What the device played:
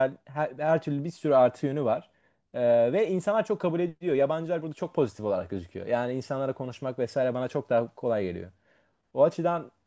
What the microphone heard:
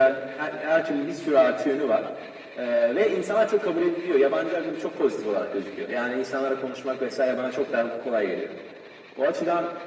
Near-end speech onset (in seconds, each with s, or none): none